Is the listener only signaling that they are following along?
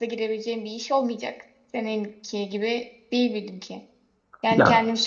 Yes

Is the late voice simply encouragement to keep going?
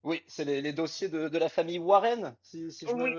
No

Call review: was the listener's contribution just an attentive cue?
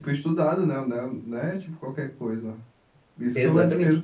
Yes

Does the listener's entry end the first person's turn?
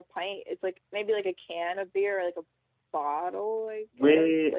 Yes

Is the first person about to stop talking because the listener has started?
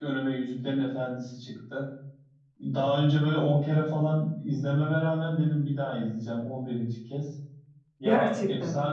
No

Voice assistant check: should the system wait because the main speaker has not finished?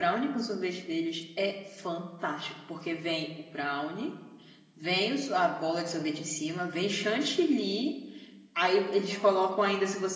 Yes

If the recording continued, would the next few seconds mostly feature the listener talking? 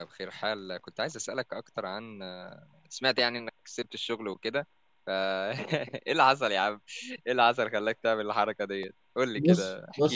Yes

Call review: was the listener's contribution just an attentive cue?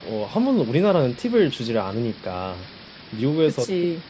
Yes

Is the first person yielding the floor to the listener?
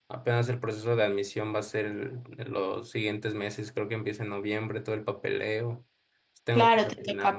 Yes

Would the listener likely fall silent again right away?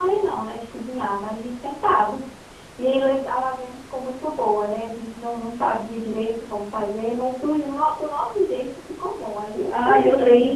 No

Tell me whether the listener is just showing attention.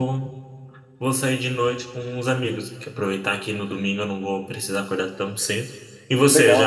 No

